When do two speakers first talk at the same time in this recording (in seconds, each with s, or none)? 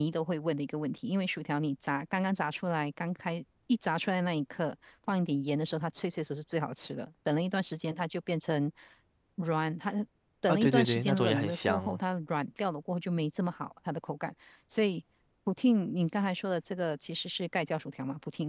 10.5 s